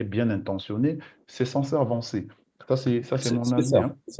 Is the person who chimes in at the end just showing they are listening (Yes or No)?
No